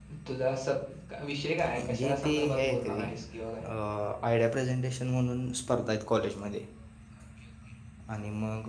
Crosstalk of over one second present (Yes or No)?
Yes